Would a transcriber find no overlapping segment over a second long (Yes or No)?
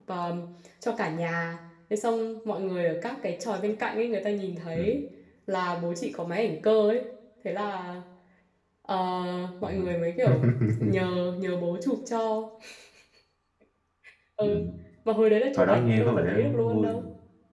No